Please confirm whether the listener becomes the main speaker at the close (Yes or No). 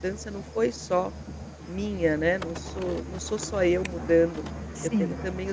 No